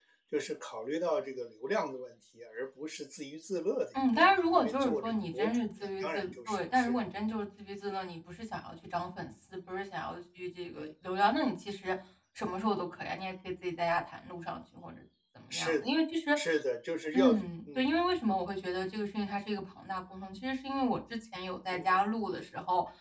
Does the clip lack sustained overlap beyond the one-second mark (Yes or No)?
No